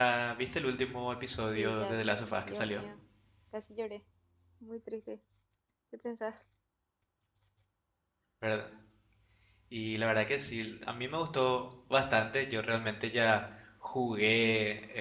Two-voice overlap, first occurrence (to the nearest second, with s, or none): 2 s